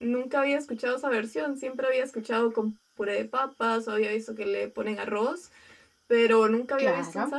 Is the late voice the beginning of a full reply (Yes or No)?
Yes